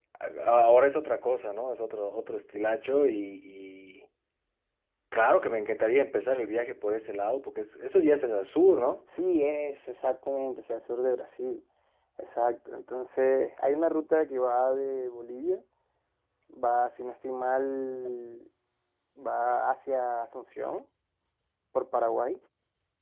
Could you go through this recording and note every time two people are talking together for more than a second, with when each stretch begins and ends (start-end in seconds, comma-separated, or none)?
none